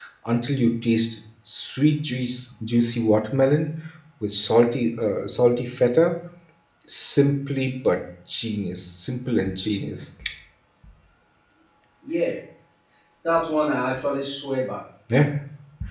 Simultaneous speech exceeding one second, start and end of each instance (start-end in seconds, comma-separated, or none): none